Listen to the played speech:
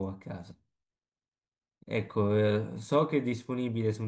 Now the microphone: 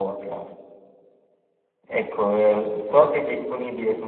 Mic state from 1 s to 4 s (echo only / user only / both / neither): echo only